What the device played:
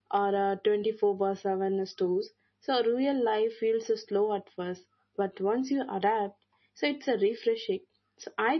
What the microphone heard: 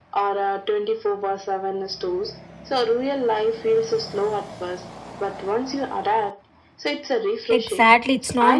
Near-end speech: present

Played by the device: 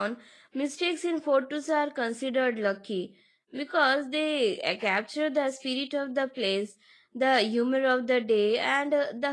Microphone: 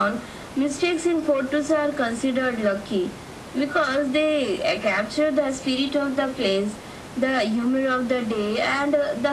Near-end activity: none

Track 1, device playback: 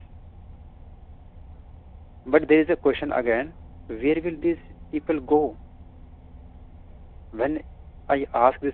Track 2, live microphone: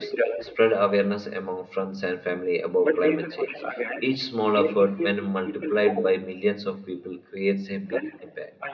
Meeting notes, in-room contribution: present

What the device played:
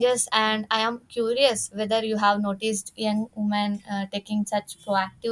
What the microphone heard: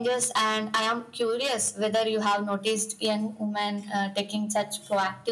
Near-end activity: none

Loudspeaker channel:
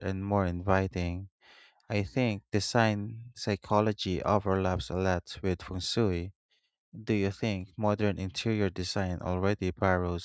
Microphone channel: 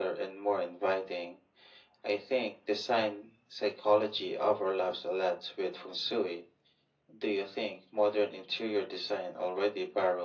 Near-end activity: none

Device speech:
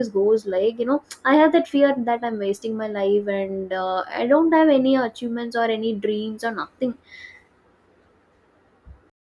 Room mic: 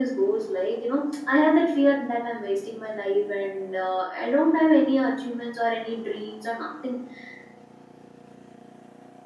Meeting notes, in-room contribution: none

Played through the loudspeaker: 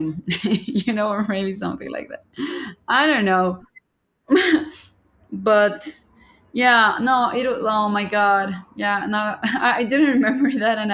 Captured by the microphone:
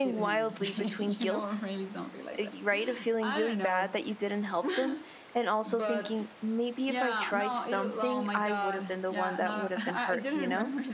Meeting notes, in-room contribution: present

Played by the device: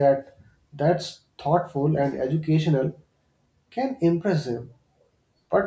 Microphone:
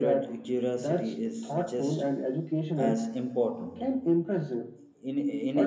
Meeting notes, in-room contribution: present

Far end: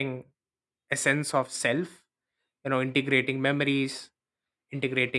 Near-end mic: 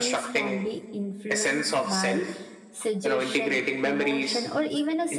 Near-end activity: present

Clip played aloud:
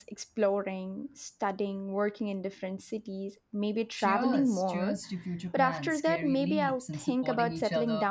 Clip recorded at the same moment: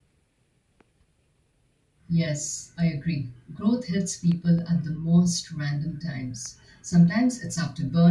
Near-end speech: present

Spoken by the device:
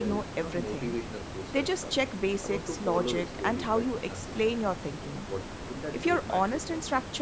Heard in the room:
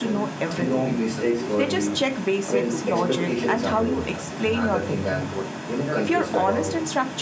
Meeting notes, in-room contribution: present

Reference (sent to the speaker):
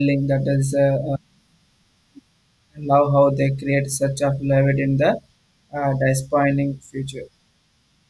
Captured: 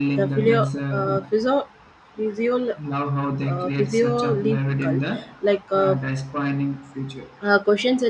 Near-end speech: present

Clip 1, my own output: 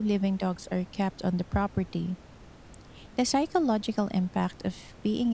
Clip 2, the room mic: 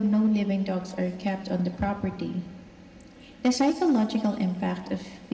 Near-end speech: none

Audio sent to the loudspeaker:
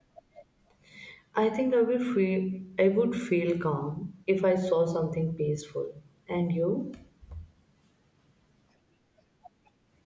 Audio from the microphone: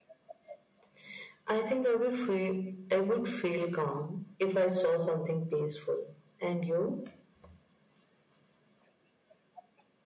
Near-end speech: none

